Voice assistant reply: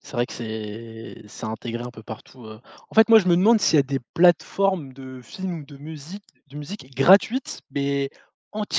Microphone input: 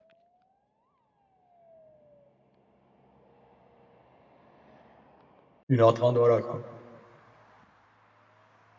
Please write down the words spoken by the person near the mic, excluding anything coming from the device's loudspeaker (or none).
une heure trente voilà, quoi.